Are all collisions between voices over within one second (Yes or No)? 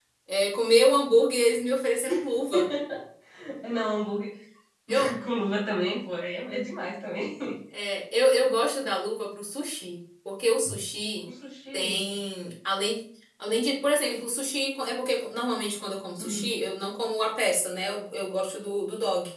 Yes